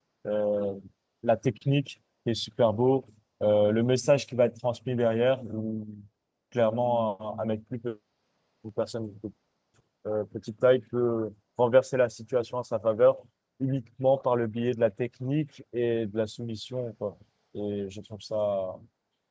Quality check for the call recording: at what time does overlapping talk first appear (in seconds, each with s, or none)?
none